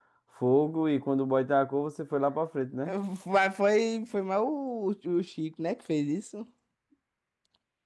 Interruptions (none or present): none